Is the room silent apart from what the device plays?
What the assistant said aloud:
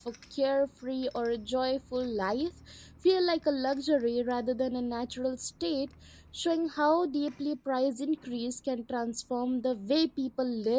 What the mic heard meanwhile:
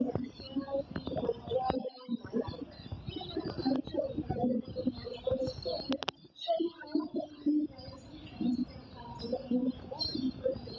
Yes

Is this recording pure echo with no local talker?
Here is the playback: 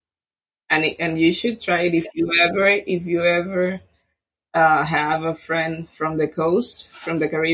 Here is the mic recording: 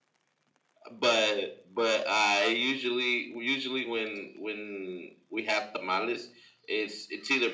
No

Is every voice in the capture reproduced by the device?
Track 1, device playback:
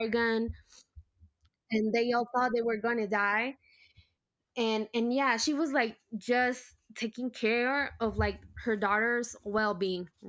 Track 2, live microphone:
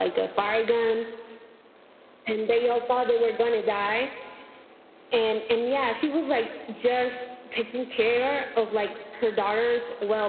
Yes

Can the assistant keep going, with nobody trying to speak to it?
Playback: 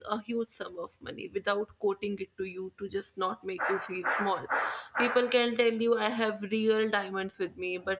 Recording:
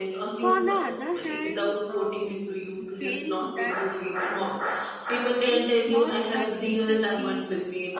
No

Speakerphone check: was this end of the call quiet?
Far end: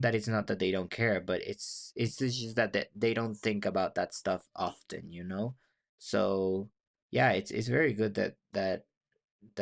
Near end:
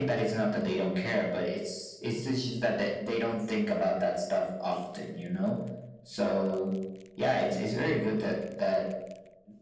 Yes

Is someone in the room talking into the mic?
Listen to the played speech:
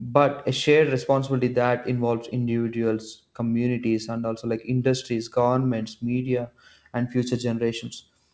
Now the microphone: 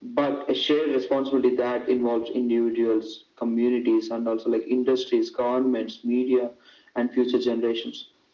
No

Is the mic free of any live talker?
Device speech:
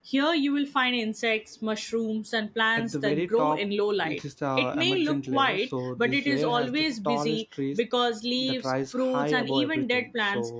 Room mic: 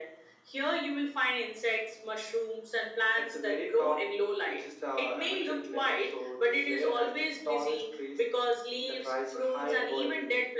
Yes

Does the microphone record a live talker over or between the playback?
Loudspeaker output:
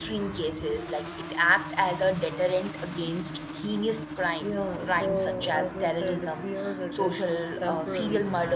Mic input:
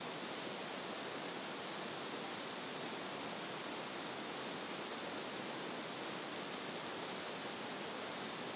No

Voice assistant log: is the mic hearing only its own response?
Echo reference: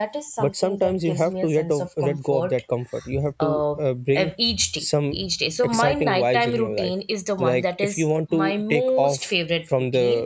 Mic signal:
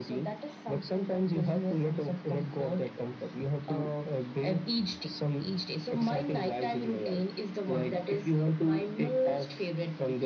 Yes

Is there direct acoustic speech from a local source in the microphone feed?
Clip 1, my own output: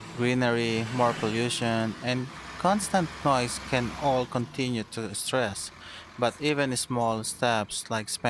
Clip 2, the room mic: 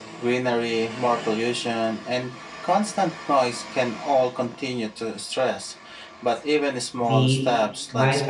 Yes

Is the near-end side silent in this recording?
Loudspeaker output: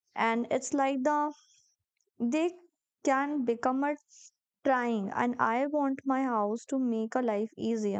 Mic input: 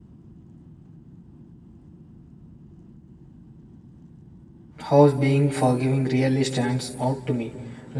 No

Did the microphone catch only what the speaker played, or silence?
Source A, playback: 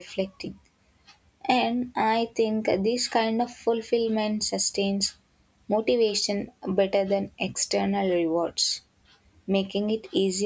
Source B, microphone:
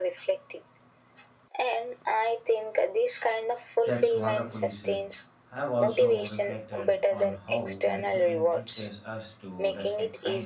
No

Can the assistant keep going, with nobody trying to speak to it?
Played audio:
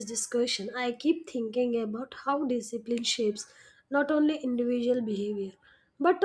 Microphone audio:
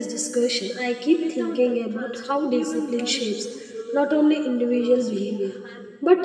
No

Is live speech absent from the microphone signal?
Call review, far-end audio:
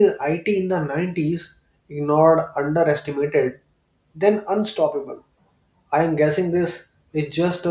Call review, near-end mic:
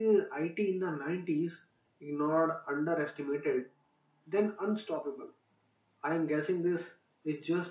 Yes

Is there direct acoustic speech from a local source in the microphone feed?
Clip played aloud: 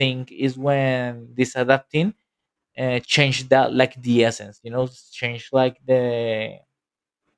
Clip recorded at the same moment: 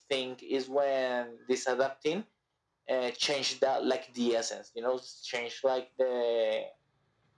No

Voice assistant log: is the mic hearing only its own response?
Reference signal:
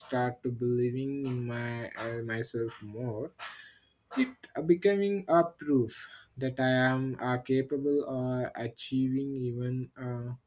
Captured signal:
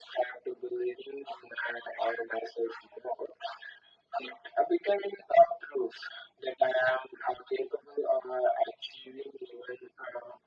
Yes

